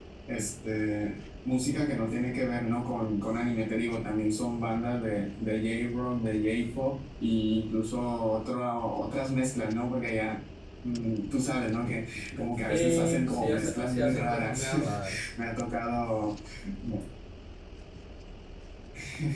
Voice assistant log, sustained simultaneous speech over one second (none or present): present